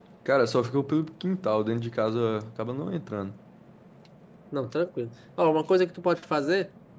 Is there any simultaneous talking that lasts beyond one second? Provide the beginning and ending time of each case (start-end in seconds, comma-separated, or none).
none